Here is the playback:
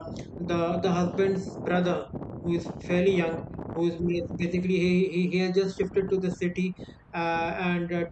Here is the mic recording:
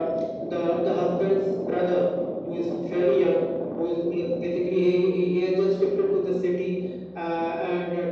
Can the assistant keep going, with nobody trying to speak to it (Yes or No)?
Yes